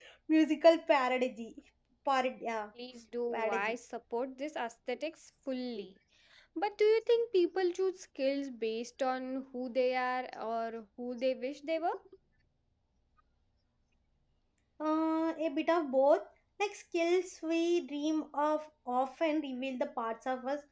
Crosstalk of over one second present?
No

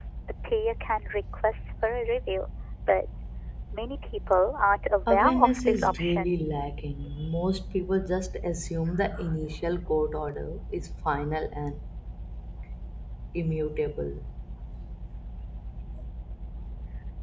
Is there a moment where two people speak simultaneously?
Yes, from 5.1 s

